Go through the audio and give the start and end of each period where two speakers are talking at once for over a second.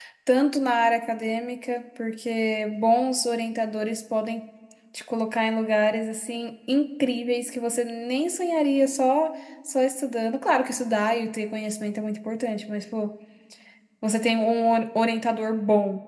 none

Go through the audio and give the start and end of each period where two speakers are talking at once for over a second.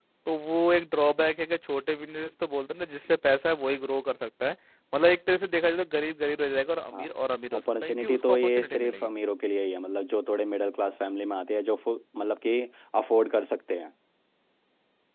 7.6-9.1

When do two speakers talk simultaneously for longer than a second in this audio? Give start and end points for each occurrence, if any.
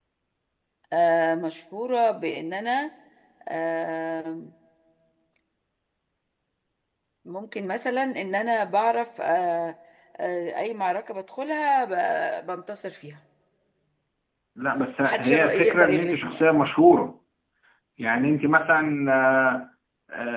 15.0-16.4

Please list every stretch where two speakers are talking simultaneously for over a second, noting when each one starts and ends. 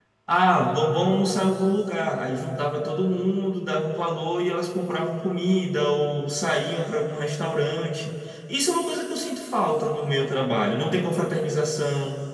none

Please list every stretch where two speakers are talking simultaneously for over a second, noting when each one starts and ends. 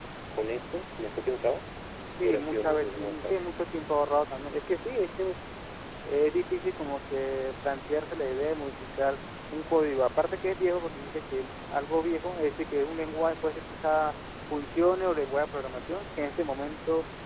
2.2-3.4

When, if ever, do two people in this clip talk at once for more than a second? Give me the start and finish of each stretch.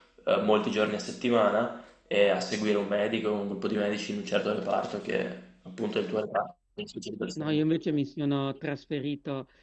none

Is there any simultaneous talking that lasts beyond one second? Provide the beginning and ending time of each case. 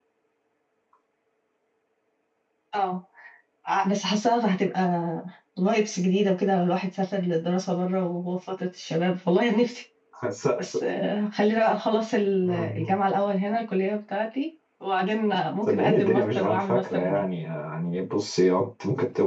15.7-17.2

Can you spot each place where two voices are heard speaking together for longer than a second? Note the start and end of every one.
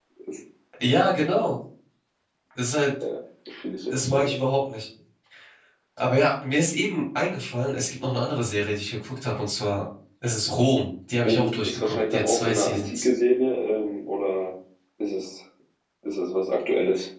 11.2-13.1

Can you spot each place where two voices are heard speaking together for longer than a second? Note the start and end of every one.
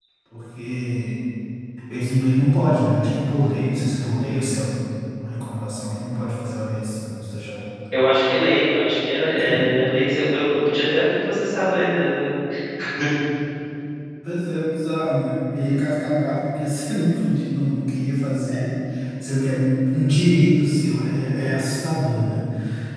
none

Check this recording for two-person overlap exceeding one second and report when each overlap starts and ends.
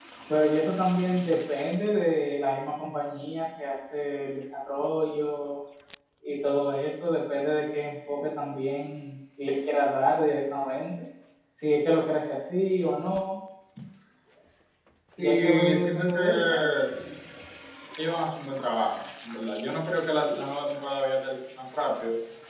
15.2-16.8

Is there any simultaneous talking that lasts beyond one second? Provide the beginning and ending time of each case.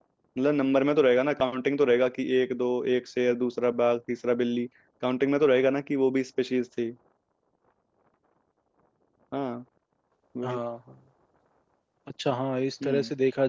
none

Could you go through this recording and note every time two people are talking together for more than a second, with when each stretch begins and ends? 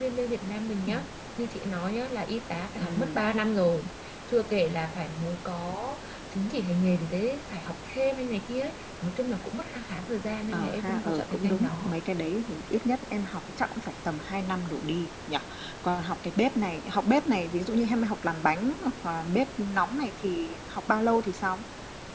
10.5-11.9

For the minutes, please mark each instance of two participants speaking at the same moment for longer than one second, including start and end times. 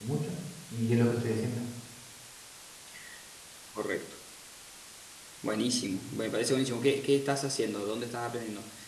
none

